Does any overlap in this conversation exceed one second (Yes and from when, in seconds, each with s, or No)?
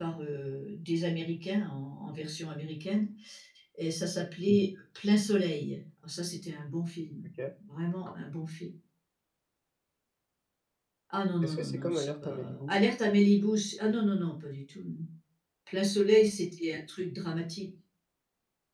Yes, from 11.4 s